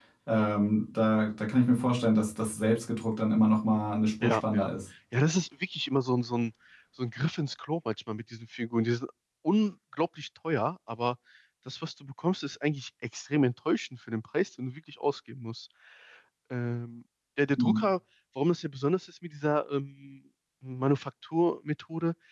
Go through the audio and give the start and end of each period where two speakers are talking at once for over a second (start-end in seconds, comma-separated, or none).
none